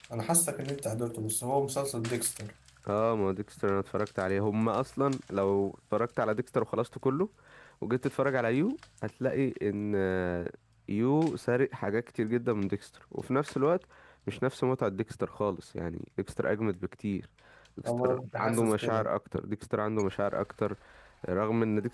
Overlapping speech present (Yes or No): Yes